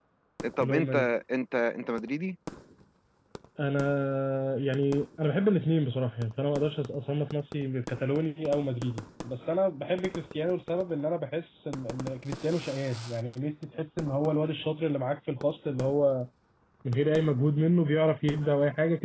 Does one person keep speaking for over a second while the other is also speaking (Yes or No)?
No